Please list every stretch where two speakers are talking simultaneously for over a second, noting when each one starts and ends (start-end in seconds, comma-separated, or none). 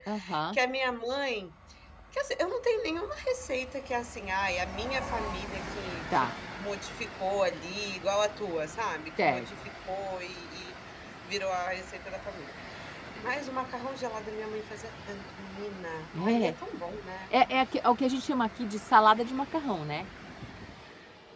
none